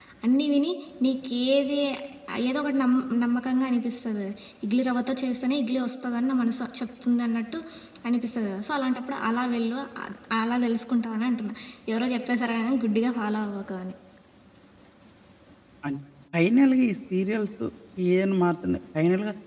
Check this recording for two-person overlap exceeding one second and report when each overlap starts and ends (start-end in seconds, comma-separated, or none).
none